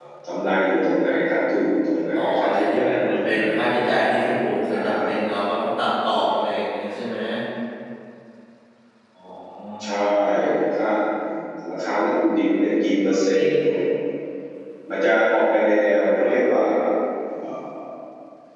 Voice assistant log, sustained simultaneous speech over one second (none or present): present